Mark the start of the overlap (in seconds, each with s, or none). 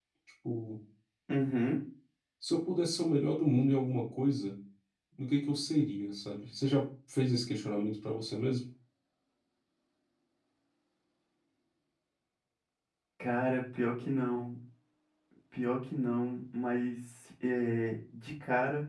none